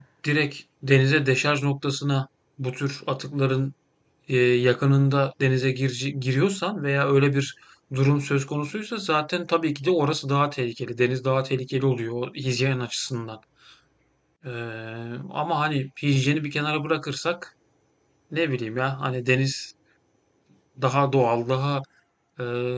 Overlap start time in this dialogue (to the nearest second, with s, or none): none